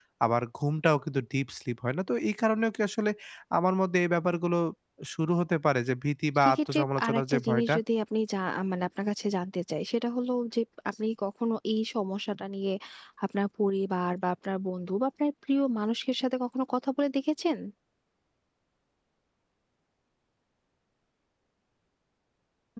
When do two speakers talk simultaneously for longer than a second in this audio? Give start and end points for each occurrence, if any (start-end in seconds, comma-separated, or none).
6.4-7.8